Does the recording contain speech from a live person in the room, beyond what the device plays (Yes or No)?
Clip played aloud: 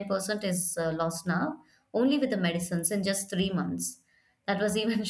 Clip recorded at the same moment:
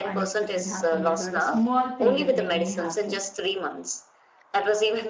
Yes